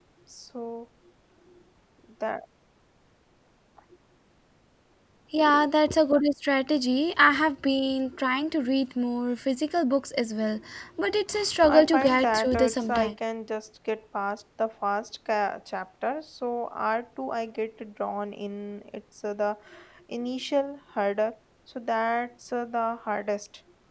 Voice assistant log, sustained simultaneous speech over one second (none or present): present